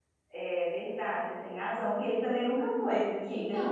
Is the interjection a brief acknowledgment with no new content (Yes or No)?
No